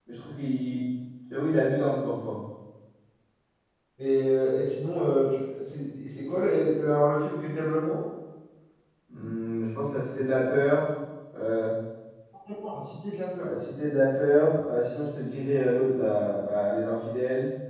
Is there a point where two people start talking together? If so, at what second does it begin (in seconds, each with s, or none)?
none